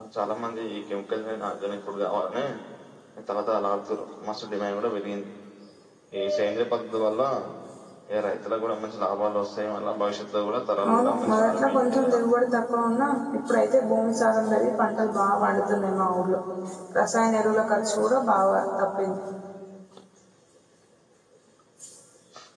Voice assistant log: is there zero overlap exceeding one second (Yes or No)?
No